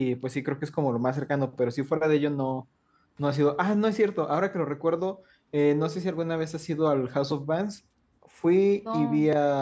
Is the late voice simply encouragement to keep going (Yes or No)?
Yes